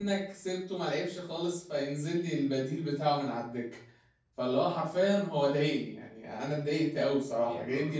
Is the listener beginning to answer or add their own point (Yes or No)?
Yes